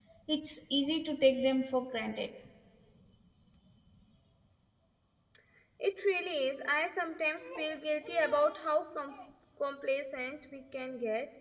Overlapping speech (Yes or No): No